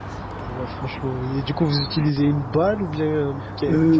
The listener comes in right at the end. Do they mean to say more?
Yes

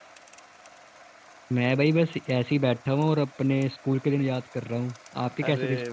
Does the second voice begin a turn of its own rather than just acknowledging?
Yes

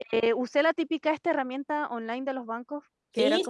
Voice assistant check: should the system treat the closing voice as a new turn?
No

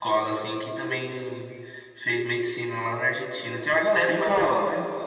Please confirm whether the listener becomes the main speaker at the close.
Yes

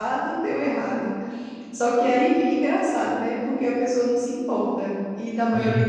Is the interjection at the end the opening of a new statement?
No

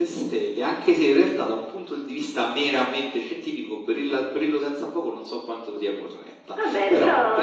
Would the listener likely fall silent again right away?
No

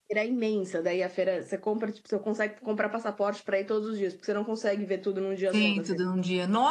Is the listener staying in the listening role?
No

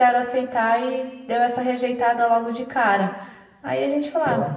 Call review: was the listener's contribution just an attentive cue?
Yes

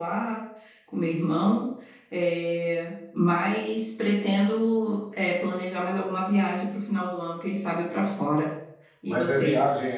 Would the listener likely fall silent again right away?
No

